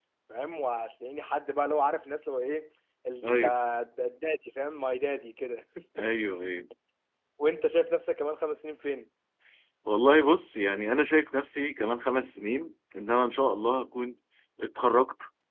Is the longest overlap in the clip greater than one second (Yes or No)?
No